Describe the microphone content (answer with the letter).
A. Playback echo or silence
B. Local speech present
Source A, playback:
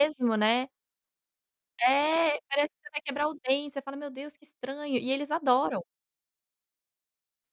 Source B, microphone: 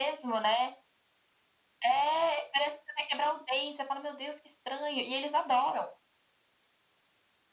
A